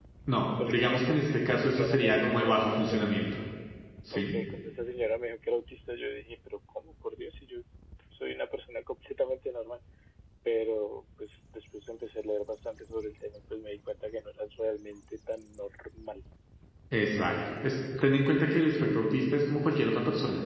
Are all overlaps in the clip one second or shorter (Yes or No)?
No